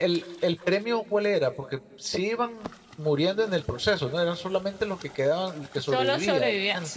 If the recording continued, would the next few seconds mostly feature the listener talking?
Yes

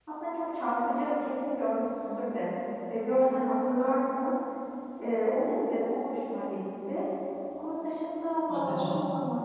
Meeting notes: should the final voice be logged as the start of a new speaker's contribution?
No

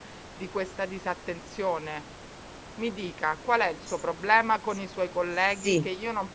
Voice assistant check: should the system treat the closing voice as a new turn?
No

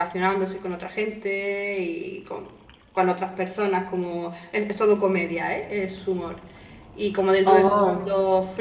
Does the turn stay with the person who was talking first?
Yes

